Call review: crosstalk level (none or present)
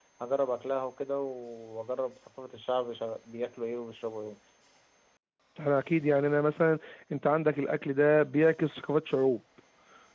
none